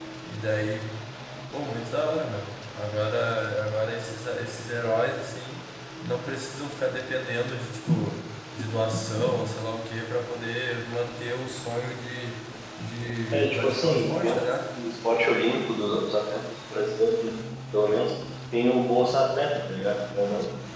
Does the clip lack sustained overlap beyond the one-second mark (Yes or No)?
No